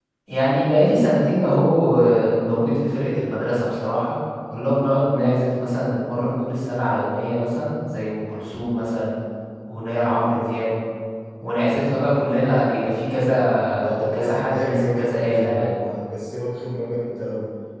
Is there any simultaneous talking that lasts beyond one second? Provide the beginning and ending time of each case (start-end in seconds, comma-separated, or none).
13.8-15.8